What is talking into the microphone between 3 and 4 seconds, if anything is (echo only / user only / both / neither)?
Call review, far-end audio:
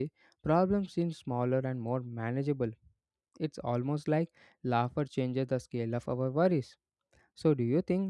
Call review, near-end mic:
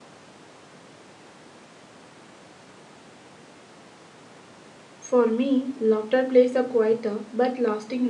neither